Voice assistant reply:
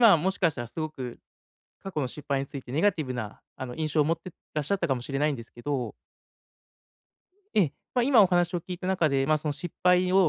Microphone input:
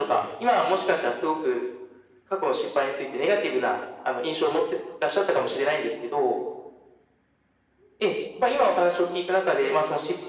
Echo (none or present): present